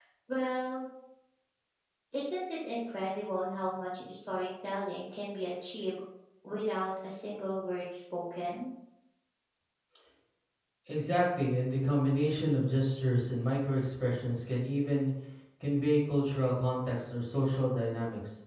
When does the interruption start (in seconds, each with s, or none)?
none